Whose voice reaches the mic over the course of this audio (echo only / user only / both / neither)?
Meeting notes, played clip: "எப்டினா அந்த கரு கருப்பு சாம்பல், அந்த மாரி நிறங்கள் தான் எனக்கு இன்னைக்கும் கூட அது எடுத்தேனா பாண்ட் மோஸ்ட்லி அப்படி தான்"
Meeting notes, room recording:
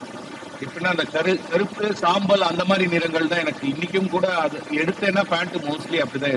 echo only